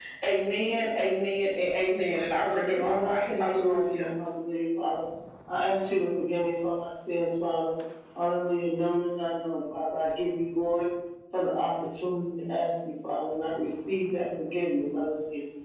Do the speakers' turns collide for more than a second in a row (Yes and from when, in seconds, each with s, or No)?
Yes, from 2.8 s